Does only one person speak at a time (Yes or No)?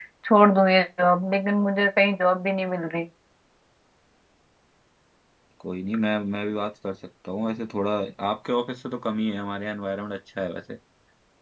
Yes